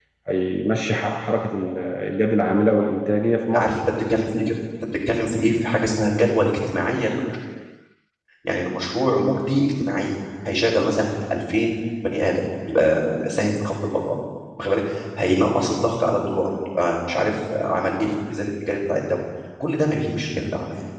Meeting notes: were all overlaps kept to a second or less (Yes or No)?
Yes